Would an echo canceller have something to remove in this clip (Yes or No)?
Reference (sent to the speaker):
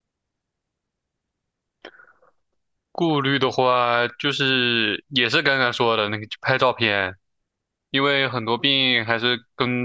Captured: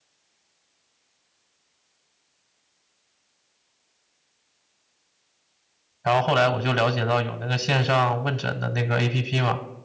No